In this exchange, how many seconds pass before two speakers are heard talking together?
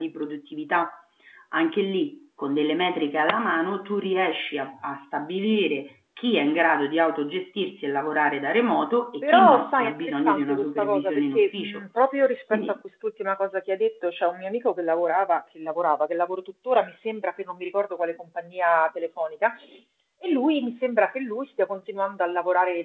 9.2 s

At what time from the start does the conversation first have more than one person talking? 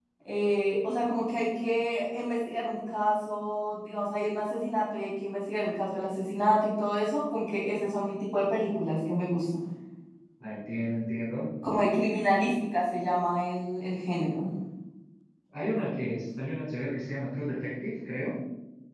none

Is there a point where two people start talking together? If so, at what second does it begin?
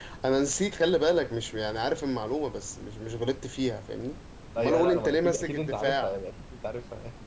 4.6 s

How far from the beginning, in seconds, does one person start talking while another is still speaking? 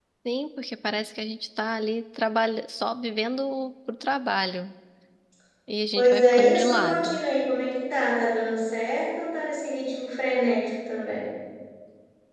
6.0 s

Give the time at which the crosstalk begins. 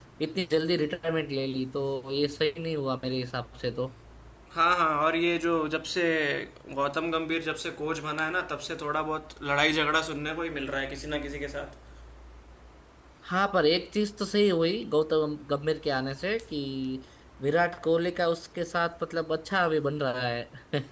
none

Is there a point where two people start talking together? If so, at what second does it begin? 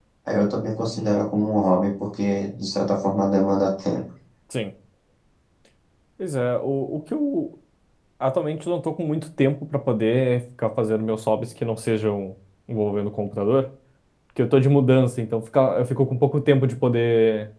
none

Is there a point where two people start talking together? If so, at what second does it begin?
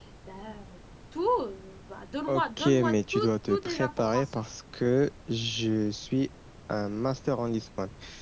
2.3 s

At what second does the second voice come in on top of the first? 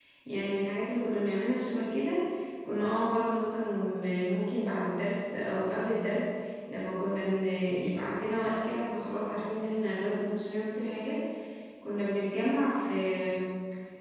none

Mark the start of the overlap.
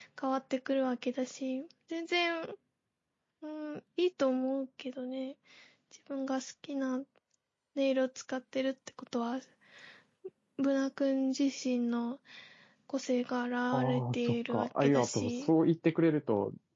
13.7 s

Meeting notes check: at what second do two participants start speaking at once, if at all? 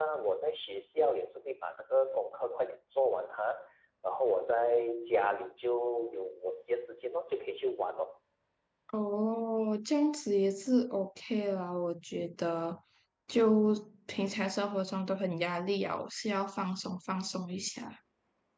none

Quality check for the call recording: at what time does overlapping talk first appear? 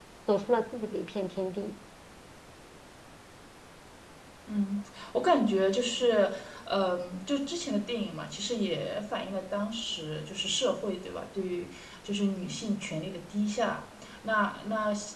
none

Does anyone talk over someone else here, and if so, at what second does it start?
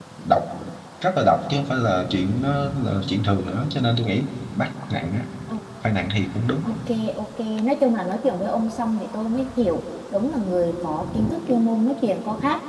none

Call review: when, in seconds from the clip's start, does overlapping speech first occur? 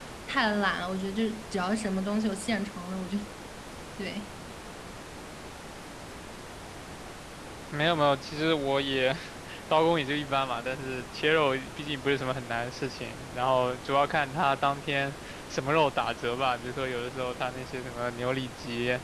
none

